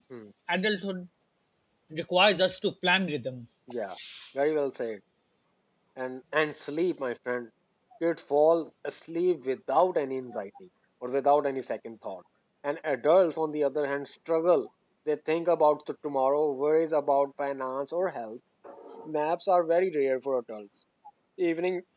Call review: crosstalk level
none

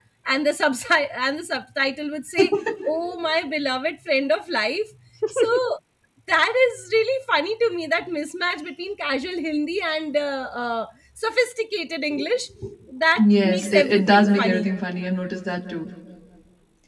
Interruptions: present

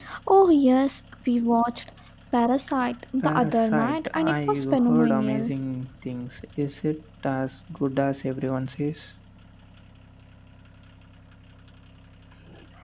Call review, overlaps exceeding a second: present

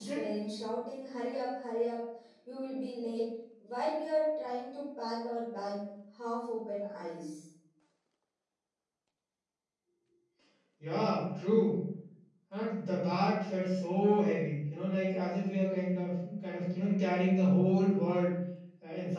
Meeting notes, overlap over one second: none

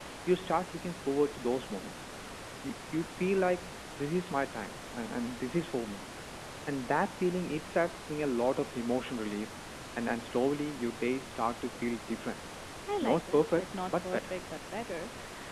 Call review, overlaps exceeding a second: present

